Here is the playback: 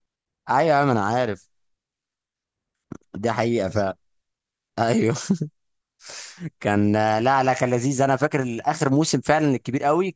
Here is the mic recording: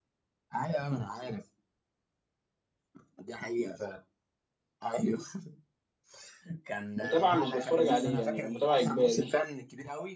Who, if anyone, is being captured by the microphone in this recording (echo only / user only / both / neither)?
both